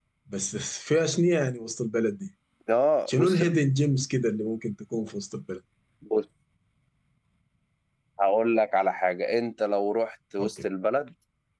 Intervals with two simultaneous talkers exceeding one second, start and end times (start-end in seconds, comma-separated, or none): none